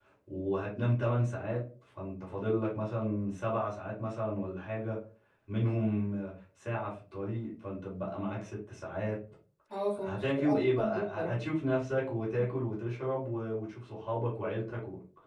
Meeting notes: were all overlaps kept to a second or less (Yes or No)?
No